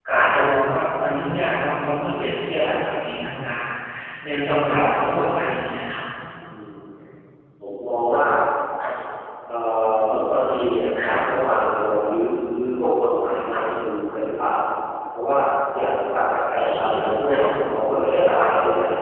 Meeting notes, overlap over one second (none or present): none